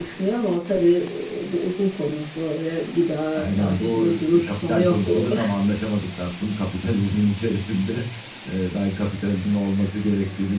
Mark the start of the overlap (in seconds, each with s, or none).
3.3 s